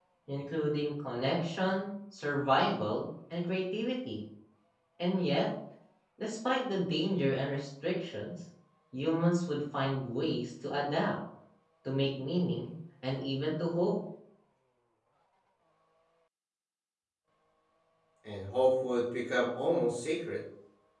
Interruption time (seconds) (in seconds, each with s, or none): none